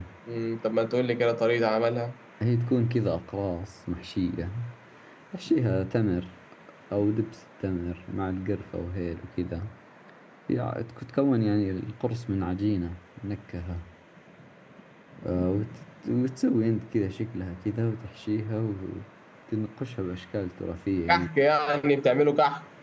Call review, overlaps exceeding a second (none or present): none